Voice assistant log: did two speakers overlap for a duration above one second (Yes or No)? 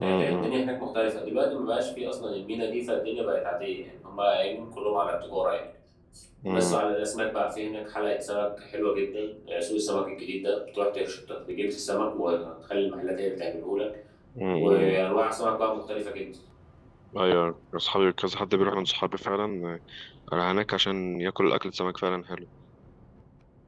No